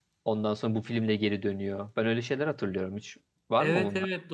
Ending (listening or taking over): taking over